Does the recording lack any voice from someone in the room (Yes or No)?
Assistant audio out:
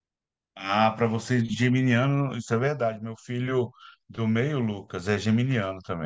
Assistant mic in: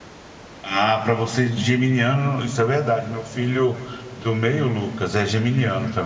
Yes